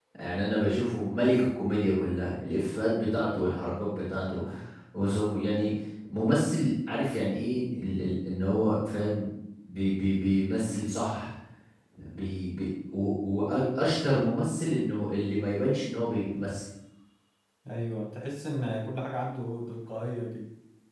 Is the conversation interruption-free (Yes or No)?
Yes